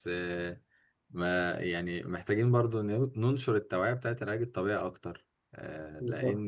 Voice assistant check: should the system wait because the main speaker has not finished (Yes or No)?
No